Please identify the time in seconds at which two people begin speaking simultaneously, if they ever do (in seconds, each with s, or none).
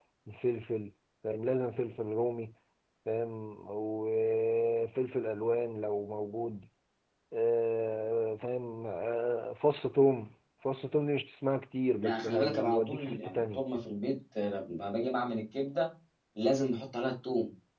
12.0 s